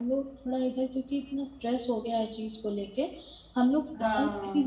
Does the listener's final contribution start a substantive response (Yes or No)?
No